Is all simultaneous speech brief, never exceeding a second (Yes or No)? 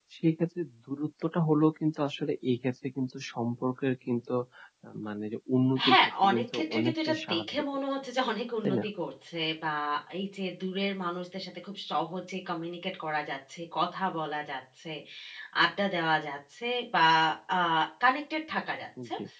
No